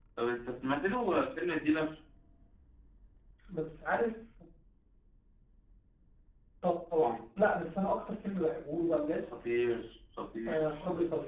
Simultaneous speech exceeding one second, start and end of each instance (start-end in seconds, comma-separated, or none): none